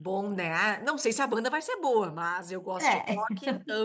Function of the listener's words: listening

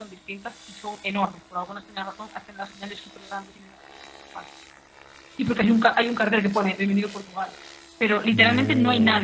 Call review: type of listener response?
listening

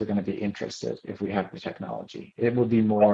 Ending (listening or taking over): listening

